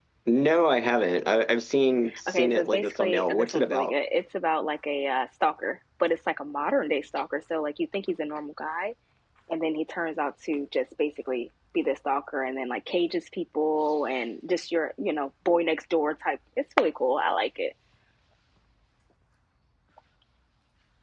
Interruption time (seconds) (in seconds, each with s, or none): 2.1 s